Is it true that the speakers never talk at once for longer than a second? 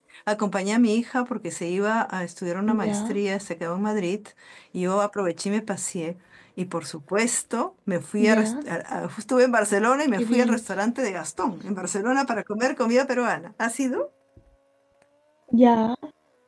Yes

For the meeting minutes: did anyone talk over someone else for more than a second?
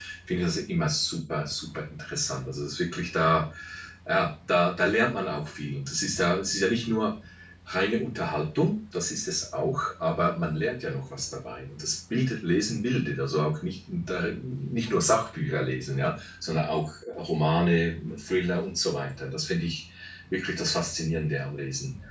No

